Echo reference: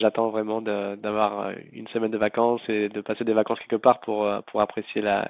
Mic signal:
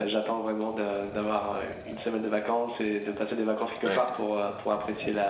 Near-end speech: present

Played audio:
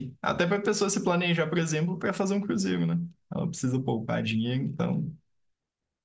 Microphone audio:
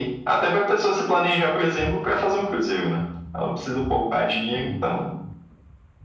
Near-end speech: none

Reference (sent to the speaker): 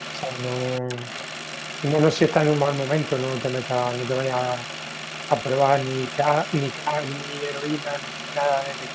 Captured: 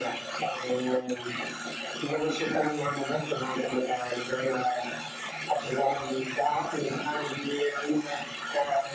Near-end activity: none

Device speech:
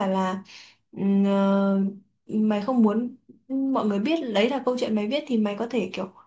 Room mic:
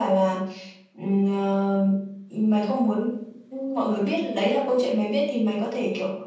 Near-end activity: none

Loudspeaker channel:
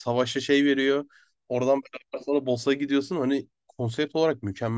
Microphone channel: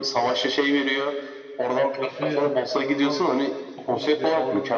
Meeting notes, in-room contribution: present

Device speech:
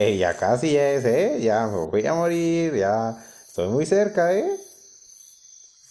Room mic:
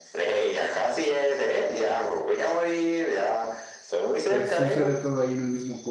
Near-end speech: present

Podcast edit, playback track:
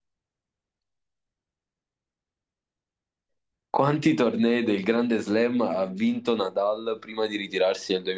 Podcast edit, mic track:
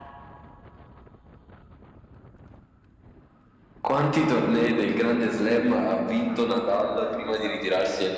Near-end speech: present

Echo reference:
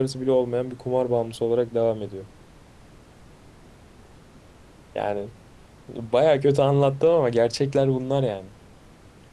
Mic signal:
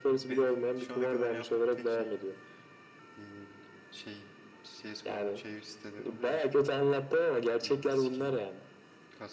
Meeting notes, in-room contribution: present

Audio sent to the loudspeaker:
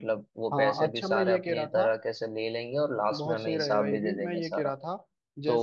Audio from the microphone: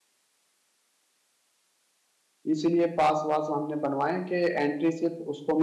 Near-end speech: present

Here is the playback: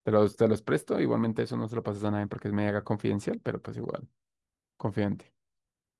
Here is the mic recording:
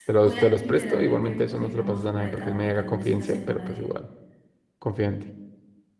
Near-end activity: present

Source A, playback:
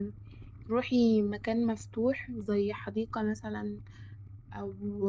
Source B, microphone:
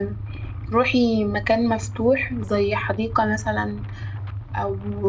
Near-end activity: none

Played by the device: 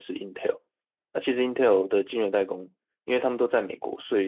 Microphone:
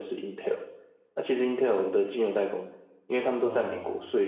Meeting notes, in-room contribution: present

